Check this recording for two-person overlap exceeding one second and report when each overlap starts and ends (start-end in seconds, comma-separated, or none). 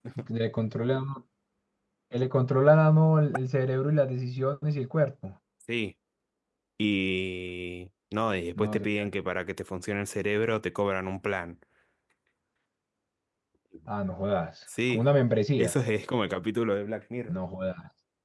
none